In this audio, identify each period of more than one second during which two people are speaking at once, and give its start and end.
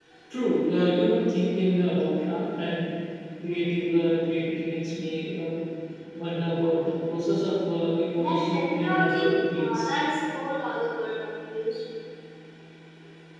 8.2-9.9

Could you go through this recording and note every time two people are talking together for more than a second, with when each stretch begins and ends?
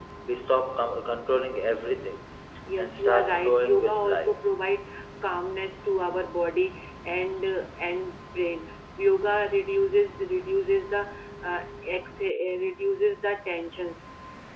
2.8-4.4

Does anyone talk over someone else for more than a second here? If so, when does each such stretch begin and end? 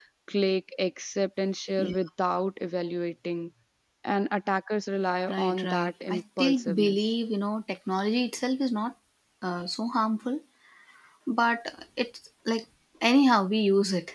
5.3-7.1

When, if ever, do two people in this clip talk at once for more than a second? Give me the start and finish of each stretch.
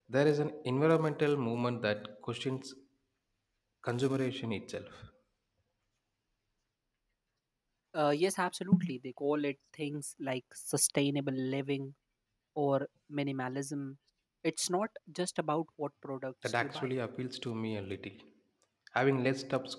none

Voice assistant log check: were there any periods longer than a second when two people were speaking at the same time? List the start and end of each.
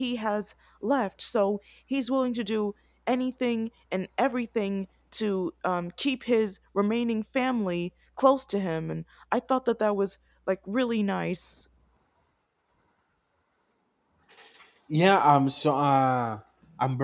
none

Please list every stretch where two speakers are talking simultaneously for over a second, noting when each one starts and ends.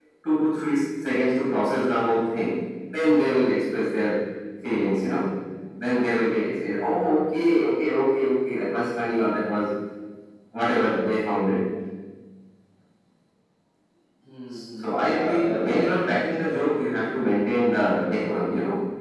14.8-17.1

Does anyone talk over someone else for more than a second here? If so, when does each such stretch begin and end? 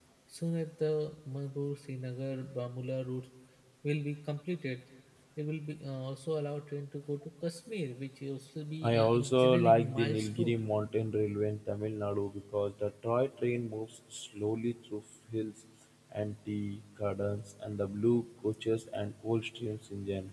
8.8-10.6

